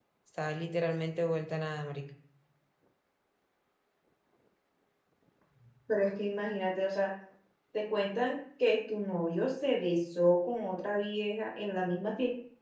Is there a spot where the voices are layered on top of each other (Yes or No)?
No